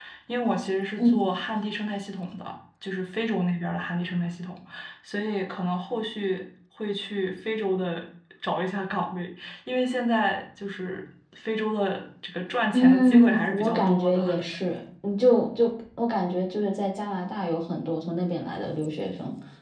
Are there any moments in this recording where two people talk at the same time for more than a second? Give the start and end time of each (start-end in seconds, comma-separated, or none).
12.7-14.2